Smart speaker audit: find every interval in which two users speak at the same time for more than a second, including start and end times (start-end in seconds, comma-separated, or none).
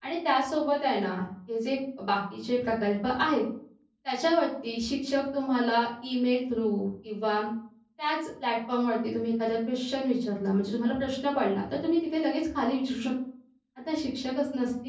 none